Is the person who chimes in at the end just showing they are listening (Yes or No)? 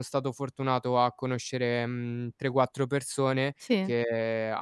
Yes